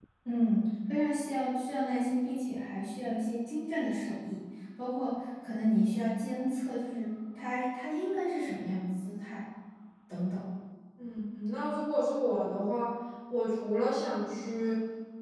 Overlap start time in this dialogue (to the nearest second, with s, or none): none